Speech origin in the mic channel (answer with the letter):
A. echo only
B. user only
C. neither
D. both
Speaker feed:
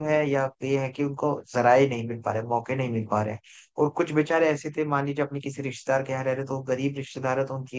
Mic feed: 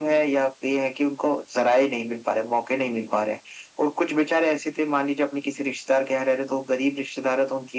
A